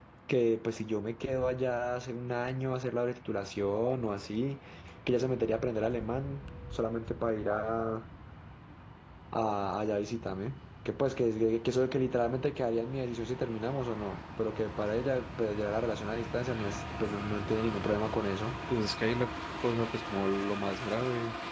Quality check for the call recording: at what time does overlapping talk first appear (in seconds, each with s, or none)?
none